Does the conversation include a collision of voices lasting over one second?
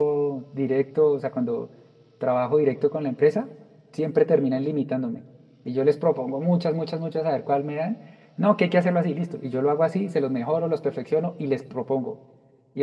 No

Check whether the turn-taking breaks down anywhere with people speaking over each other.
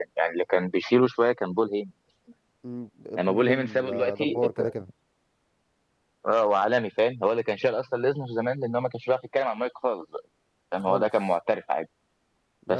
Yes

